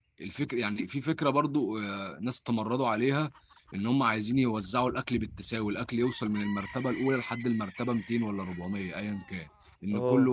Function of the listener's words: listening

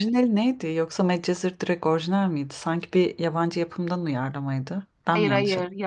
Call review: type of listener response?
taking over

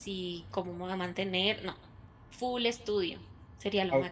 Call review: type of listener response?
taking over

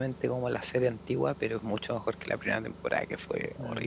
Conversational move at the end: taking over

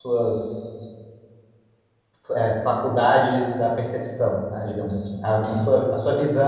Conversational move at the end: listening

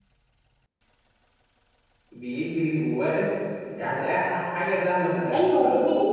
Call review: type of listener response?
taking over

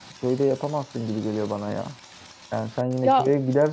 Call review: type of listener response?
listening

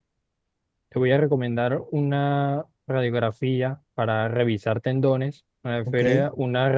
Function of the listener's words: listening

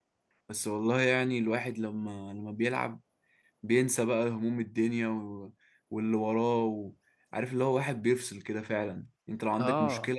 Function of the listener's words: listening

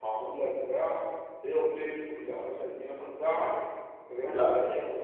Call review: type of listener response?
listening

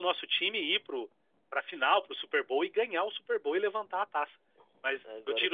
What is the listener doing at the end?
listening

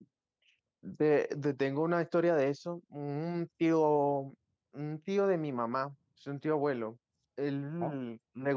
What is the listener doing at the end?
listening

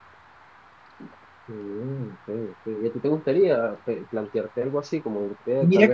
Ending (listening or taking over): taking over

